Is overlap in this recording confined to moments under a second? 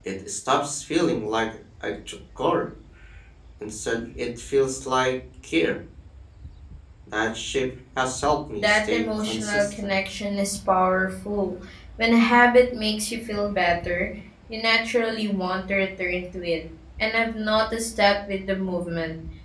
No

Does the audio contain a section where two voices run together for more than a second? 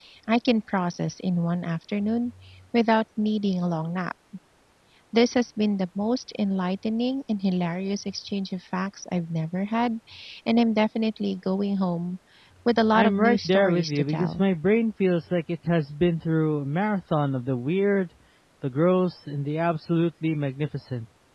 Yes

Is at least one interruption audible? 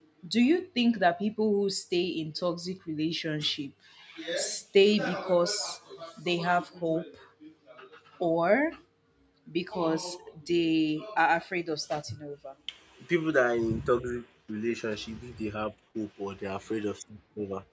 No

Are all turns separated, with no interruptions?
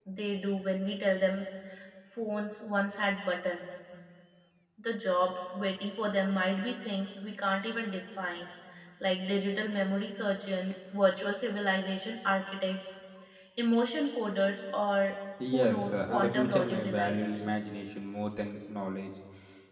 No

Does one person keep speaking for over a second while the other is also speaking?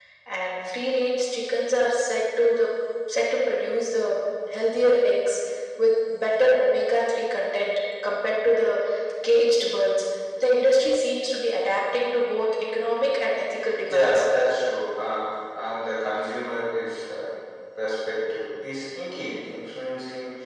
No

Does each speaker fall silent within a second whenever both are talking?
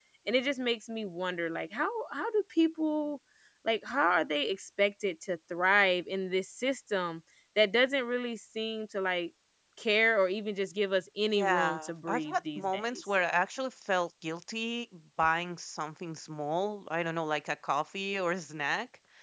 No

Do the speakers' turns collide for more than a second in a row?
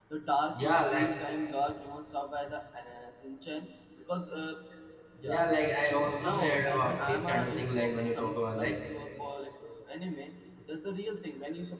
Yes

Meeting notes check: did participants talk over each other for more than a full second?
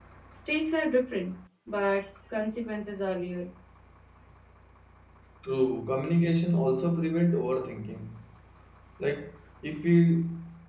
No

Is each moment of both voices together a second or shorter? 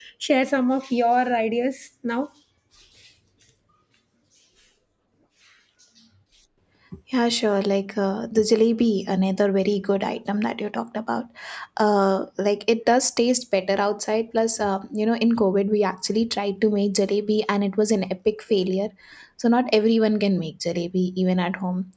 Yes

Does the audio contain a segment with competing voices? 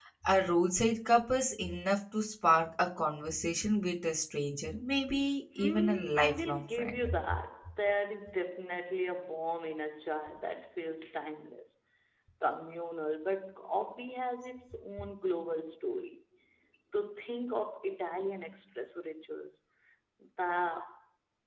Yes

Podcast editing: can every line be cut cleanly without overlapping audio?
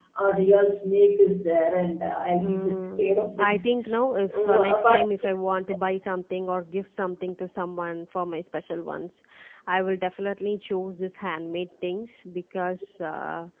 No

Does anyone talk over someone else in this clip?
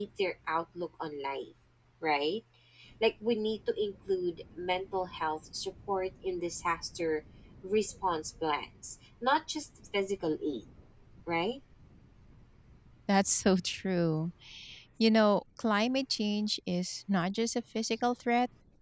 No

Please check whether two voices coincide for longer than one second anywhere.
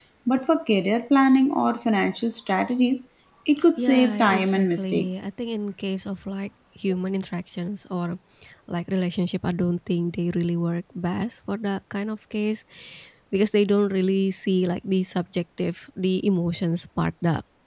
Yes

